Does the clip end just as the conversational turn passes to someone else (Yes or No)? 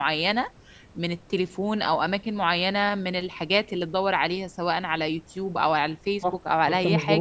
Yes